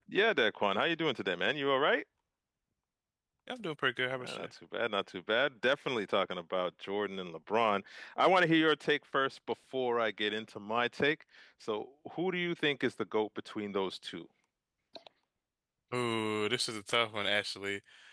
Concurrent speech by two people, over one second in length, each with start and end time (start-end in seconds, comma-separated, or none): none